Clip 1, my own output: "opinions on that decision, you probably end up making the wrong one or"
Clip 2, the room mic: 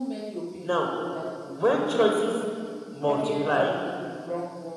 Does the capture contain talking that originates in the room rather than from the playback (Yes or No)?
Yes